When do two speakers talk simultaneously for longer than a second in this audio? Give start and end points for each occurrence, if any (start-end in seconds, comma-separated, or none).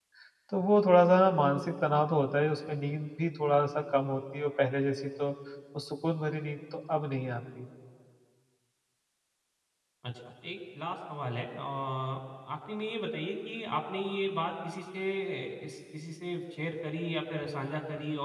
none